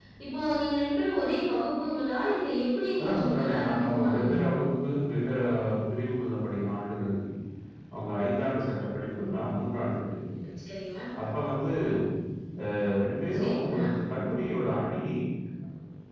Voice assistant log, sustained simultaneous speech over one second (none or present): present